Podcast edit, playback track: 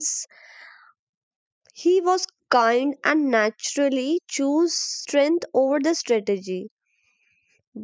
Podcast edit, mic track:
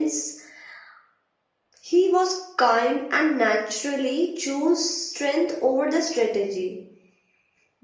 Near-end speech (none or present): none